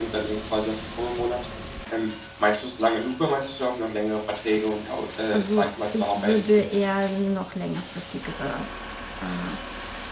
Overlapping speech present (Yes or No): Yes